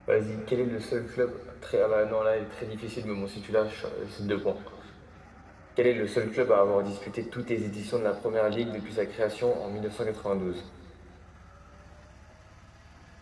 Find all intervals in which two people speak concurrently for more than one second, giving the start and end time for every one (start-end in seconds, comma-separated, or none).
none